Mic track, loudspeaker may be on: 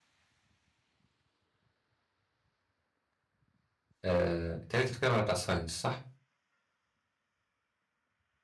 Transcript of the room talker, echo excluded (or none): آه تالي بتتكلم على بتاع ساينس صح